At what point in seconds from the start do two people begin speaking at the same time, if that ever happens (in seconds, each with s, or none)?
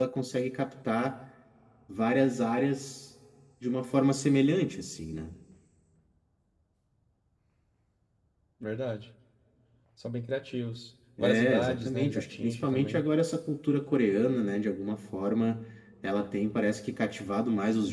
11.2 s